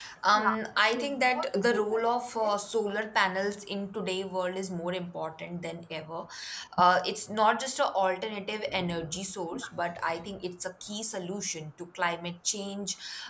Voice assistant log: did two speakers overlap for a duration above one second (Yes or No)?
Yes